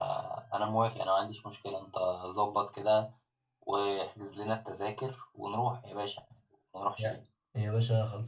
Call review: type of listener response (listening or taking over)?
taking over